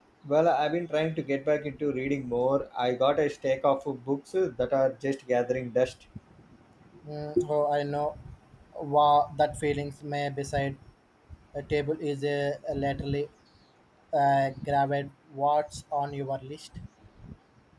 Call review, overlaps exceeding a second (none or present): none